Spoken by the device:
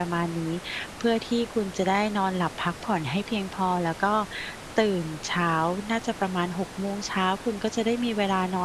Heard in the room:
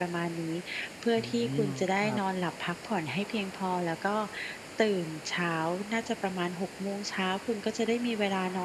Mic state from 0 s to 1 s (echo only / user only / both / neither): echo only